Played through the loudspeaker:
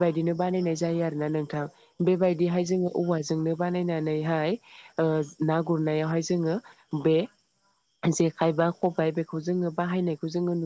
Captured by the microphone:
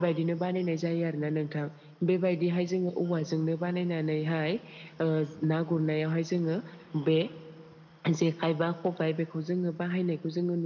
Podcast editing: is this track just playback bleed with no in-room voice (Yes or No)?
Yes